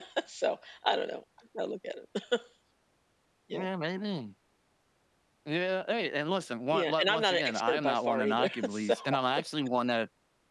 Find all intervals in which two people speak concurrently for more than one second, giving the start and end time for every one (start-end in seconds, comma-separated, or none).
6.7-8.9